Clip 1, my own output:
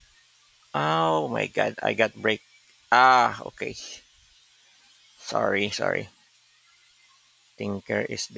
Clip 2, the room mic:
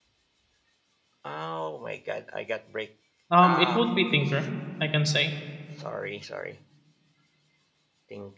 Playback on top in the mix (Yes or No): No